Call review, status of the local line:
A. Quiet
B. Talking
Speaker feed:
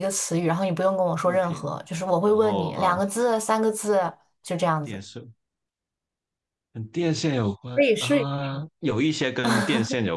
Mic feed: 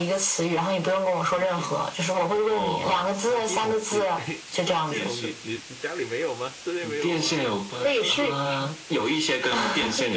B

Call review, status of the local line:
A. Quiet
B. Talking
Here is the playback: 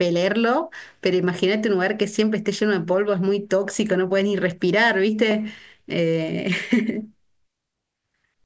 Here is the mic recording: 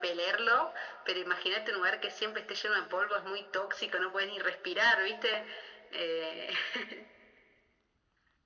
A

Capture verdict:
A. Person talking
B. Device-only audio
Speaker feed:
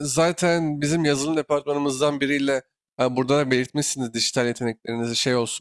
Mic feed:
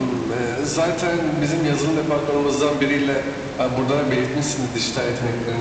B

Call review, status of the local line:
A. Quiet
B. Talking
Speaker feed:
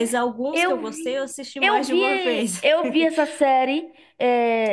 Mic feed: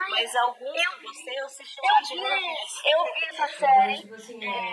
B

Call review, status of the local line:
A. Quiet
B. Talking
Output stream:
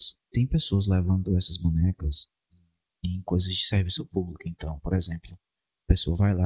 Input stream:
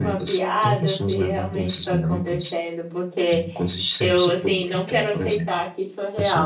B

